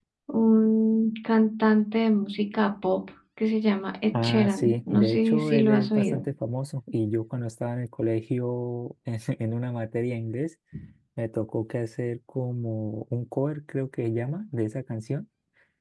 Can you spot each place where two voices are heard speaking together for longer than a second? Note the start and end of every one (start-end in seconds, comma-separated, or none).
4.2-6.2